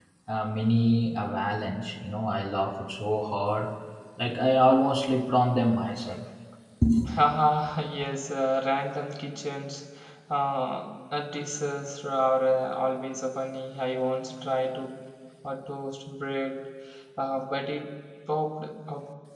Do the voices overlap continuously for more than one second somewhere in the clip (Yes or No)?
No